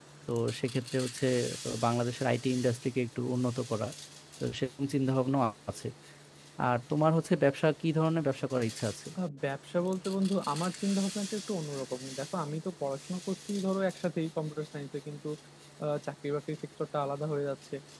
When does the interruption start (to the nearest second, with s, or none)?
none